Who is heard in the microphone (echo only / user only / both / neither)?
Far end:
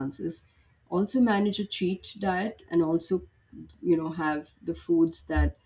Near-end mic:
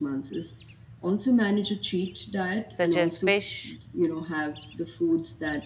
both